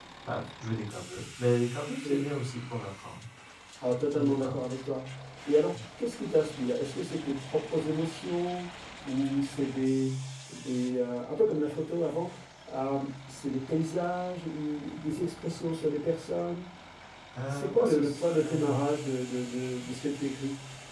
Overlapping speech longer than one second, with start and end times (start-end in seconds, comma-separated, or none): 17.4-18.8